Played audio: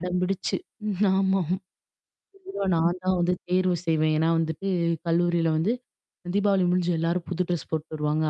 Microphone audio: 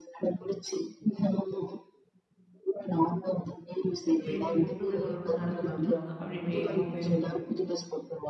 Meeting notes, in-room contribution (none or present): present